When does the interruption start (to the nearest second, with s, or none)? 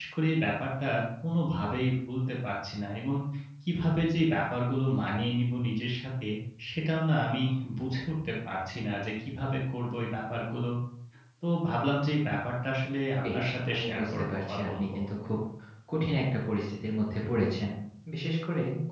13 s